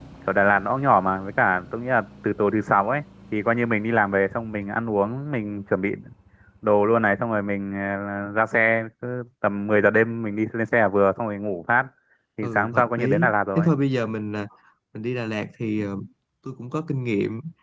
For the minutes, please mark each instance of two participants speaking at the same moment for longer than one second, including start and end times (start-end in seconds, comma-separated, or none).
12.4-13.7